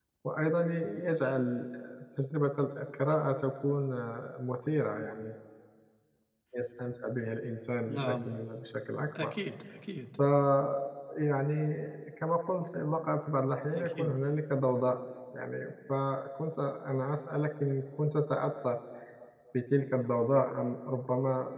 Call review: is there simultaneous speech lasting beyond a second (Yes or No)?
No